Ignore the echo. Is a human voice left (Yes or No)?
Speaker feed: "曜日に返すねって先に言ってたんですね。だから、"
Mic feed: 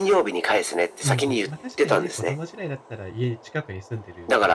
Yes